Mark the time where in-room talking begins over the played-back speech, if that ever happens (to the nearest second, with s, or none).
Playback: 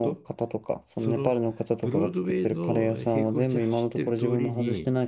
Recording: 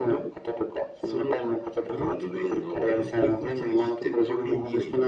none